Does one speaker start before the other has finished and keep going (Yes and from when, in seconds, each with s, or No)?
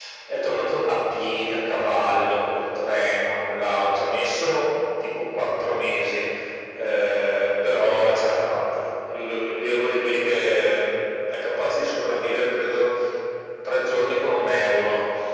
No